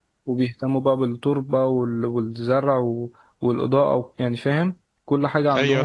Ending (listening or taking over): taking over